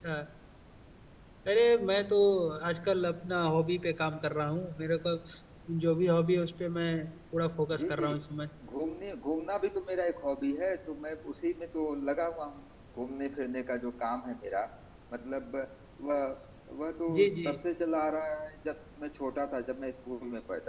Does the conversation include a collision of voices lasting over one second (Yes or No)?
No